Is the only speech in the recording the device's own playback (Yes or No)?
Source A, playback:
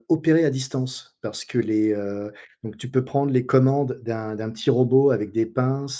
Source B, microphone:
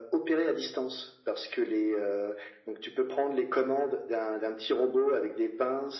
Yes